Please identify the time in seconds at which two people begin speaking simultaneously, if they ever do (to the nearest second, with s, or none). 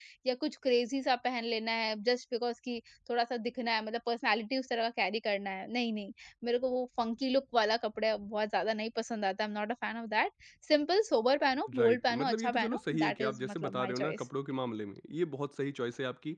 12 s